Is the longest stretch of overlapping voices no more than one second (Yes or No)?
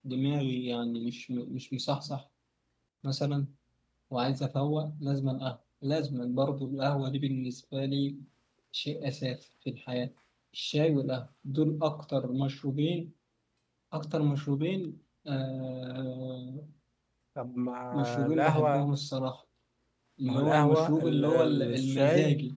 No